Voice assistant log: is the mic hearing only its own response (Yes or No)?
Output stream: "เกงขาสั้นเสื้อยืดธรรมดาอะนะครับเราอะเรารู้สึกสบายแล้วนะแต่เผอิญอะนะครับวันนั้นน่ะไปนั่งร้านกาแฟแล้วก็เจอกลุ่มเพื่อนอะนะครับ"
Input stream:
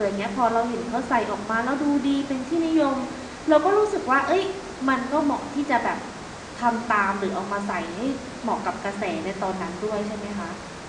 No